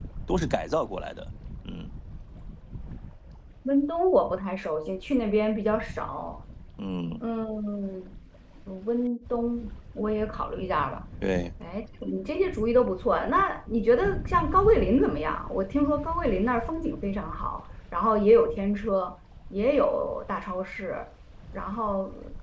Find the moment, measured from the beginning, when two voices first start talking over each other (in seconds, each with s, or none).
none